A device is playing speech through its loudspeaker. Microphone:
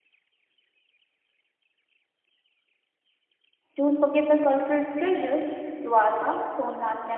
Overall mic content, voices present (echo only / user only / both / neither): user only